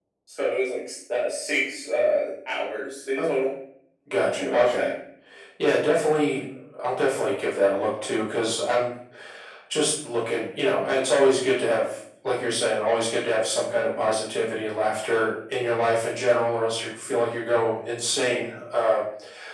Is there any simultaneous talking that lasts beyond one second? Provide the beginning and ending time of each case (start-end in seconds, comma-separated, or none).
none